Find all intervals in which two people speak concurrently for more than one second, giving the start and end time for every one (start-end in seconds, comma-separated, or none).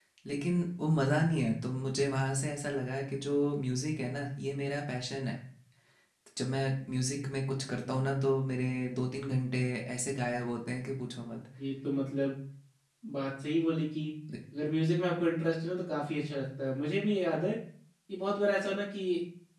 none